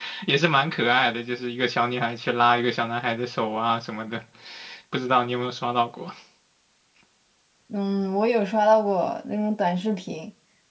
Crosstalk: none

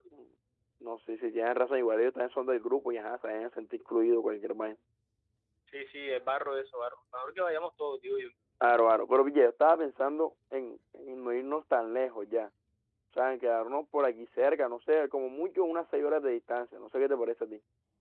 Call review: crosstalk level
none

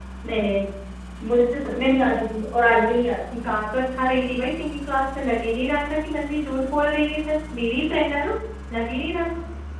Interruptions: none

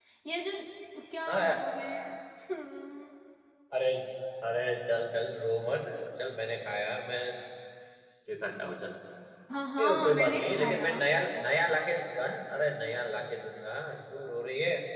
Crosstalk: present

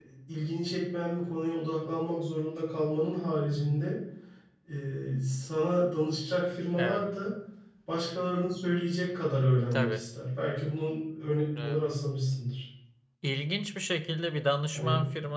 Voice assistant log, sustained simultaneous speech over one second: none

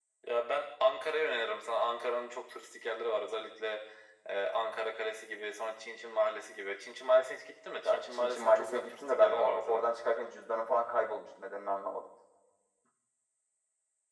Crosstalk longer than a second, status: present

